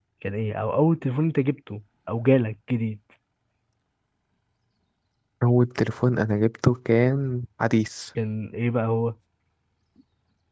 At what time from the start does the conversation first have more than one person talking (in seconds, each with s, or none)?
none